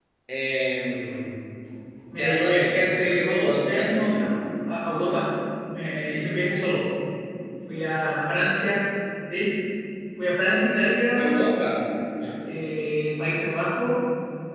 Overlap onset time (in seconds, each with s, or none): 2.2 s